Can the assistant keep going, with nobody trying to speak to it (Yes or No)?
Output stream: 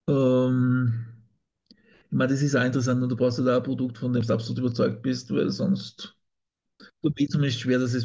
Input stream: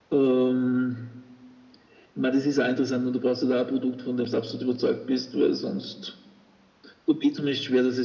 Yes